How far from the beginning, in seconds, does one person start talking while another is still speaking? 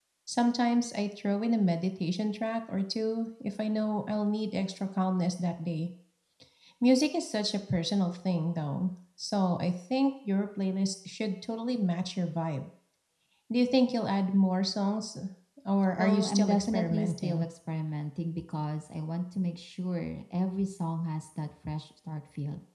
16.0 s

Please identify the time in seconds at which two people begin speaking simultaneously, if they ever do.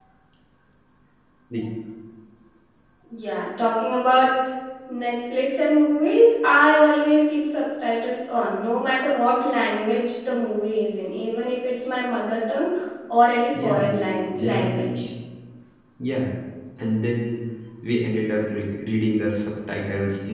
13.5 s

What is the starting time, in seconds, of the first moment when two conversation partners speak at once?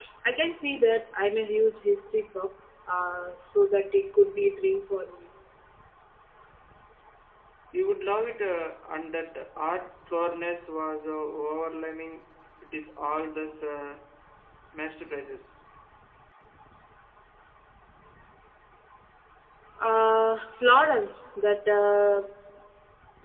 none

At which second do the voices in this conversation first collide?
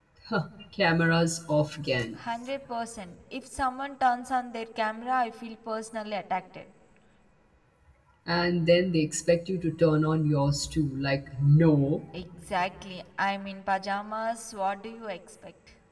none

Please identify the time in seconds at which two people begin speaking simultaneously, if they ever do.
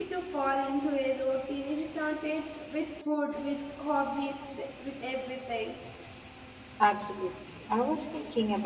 none

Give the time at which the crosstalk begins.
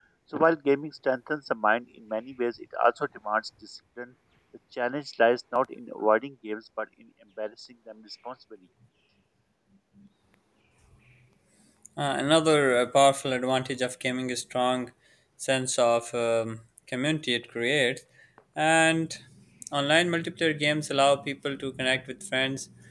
none

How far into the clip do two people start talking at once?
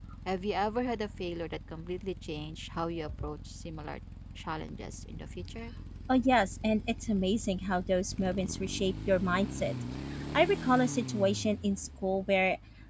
none

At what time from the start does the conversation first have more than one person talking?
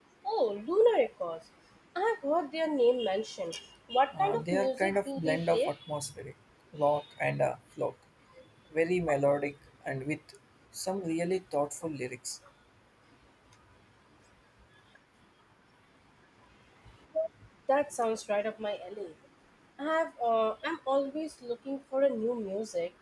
4.1 s

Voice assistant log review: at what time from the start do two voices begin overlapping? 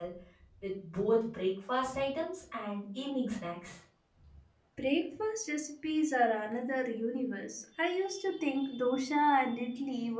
none

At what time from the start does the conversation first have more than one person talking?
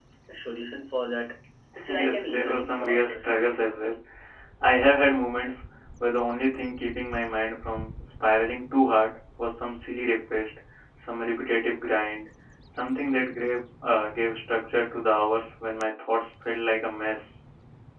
1.8 s

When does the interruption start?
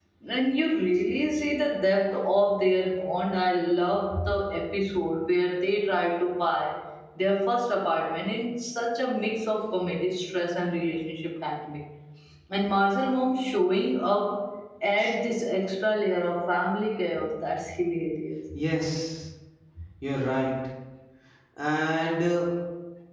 none

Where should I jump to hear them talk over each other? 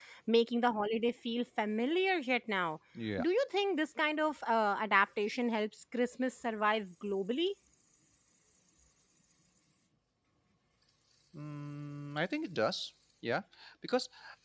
none

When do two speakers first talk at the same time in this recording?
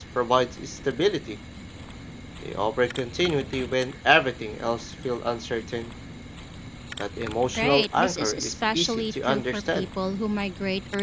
7.6 s

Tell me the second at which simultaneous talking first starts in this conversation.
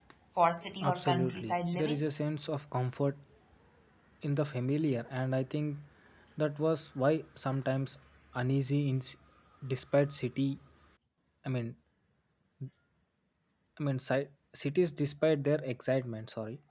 0.8 s

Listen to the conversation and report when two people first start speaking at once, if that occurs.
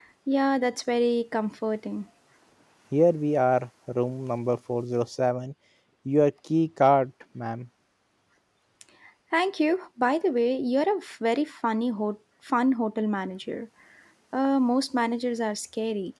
none

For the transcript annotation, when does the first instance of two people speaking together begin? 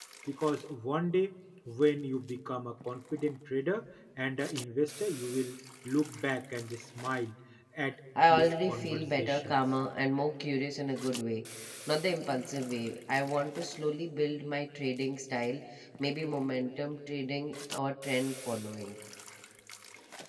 8.2 s

